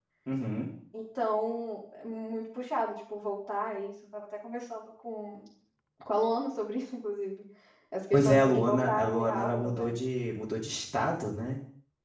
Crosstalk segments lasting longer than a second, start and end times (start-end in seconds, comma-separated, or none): 8.1-9.9